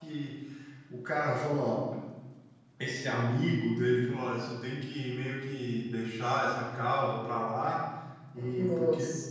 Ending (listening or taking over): listening